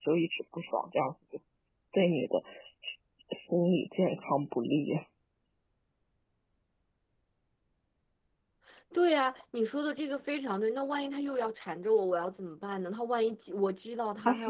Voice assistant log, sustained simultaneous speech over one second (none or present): none